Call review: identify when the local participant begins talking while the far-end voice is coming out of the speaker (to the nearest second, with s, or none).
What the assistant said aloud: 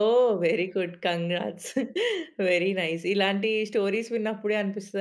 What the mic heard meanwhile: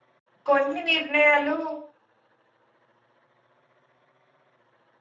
0 s